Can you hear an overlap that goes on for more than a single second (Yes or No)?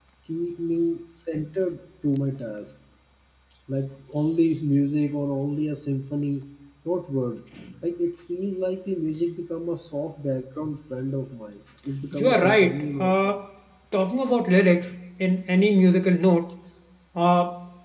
Yes